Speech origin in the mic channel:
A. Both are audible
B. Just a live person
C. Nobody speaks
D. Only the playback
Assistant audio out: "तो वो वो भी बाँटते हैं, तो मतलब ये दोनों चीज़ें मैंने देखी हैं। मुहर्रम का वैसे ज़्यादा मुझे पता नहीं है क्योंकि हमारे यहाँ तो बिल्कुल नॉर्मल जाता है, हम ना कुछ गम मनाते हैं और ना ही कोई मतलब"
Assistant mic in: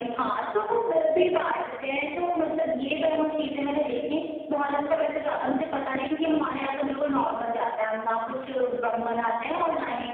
D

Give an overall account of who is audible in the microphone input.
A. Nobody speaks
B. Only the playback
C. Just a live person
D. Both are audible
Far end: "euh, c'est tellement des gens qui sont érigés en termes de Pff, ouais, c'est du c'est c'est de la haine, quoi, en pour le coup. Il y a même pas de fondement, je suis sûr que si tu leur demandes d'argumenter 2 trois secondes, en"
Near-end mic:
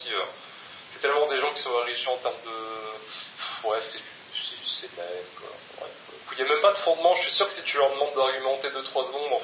B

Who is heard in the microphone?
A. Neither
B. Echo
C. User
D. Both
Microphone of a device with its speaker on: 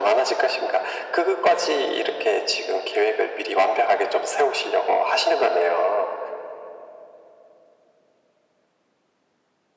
B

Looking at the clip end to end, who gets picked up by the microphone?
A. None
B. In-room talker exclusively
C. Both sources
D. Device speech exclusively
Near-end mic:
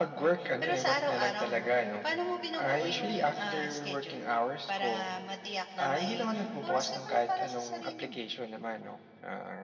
D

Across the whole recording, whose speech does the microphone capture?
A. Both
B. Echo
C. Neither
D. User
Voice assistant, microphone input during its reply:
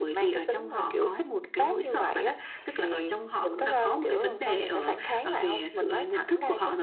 B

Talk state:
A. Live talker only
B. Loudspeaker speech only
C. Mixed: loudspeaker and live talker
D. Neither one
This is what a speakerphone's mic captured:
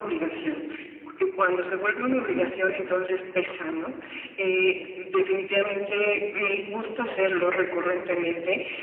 C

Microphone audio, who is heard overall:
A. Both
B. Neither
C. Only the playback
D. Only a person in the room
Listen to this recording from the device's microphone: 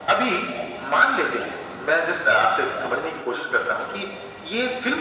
C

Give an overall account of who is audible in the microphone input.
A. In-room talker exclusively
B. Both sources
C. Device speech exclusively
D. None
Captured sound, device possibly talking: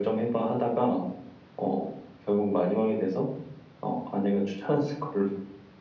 C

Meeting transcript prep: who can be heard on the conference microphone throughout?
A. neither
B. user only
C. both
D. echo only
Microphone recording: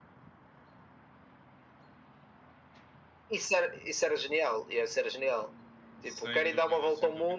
C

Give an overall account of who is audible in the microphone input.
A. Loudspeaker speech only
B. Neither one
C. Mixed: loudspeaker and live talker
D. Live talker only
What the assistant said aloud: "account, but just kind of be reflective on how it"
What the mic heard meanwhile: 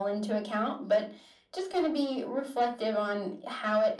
A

